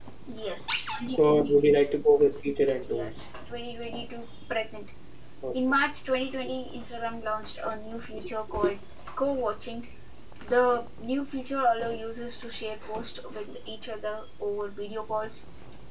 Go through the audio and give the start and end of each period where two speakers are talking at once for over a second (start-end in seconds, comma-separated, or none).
none